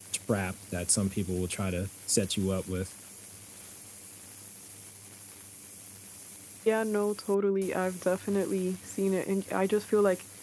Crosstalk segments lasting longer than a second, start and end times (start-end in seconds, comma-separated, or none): none